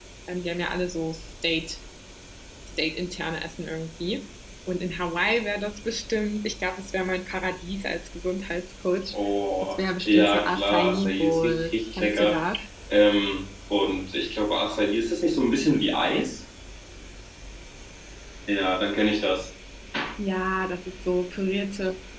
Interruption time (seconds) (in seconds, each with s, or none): 9.6 s